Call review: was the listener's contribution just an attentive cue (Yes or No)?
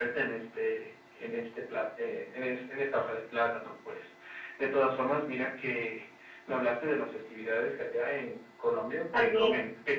Yes